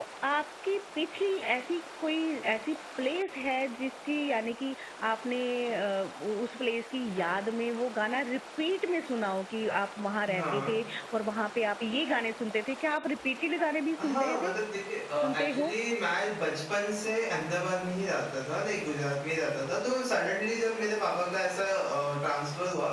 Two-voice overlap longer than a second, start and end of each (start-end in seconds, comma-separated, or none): none